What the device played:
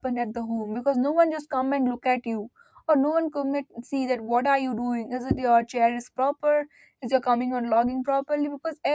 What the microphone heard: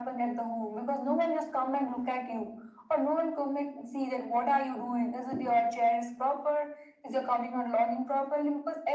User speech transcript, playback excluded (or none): none